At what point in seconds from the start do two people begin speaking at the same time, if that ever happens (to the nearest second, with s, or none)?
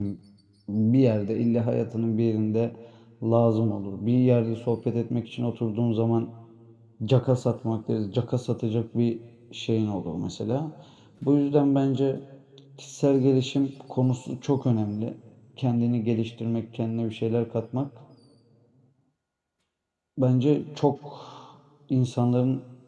none